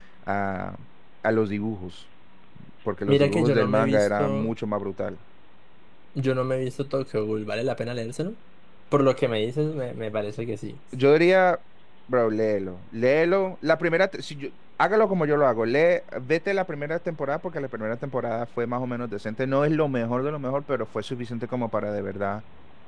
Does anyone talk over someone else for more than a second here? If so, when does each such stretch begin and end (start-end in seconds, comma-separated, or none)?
3.1-4.5